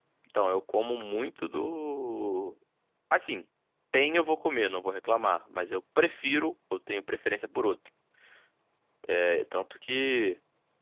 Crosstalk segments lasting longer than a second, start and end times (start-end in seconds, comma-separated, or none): none